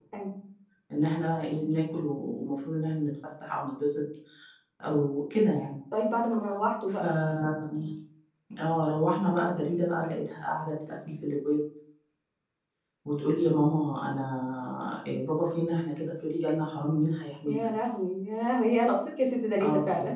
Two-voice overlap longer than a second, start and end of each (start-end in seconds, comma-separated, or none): none